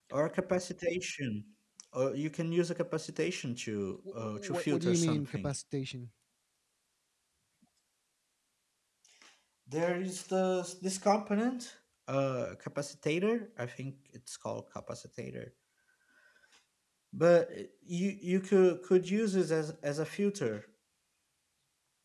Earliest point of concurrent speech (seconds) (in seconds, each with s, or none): 4.2 s